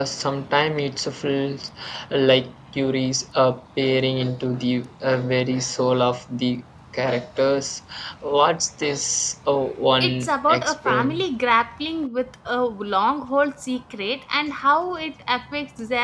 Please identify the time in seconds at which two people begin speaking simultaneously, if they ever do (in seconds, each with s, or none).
10.0 s